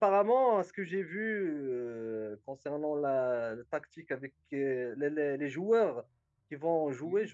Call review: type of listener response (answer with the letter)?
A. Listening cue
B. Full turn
A